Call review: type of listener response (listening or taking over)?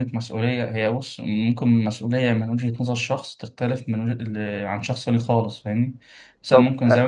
listening